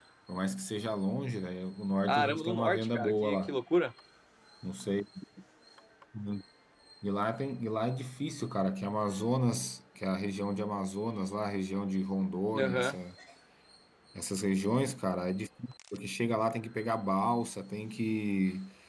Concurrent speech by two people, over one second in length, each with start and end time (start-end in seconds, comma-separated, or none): 2.1-3.6